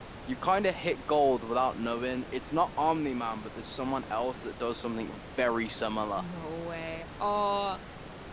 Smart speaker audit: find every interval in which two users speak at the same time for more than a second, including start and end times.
none

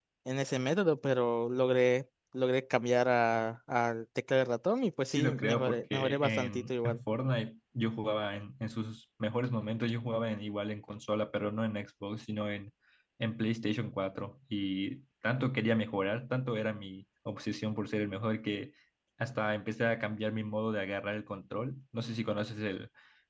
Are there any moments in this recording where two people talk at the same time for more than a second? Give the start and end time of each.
5.1-7.0

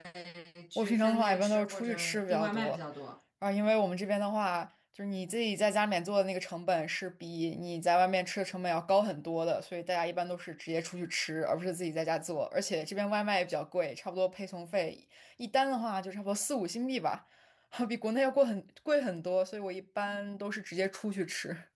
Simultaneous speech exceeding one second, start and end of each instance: 0.8-2.8

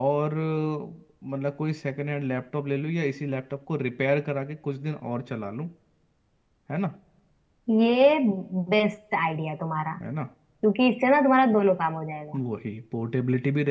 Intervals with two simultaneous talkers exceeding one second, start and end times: none

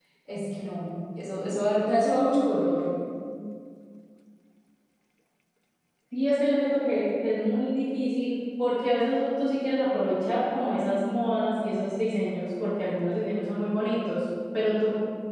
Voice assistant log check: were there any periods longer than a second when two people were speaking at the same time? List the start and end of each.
none

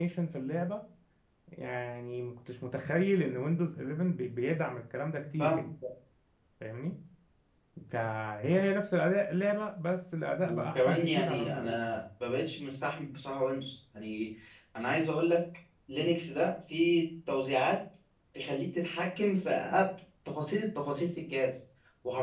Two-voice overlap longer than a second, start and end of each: 10.5-11.8

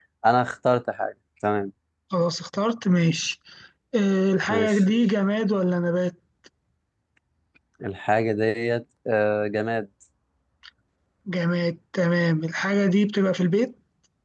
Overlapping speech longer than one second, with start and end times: none

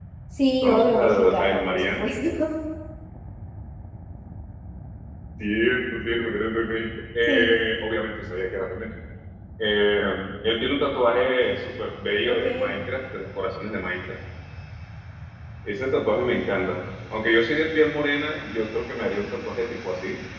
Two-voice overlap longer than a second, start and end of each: 0.6-2.1

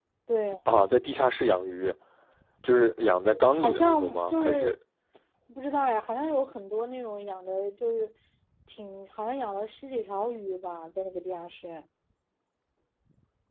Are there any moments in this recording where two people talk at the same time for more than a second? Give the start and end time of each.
3.5-4.8

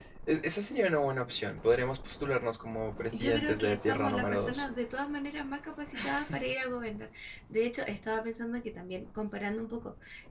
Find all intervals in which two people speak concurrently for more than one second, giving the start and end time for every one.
3.2-4.6

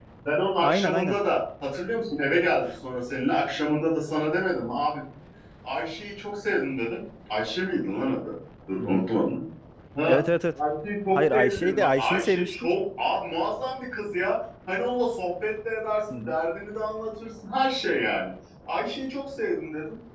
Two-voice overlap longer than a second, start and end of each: 11.2-12.6

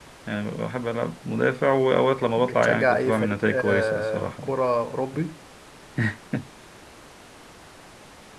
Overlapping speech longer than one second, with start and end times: 2.4-4.5

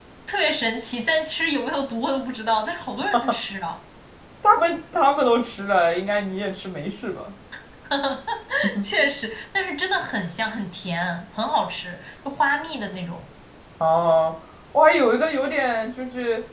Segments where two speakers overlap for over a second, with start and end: none

